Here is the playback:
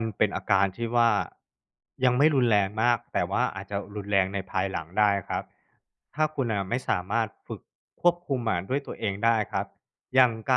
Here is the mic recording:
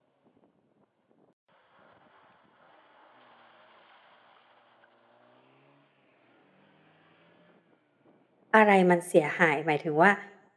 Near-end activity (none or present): present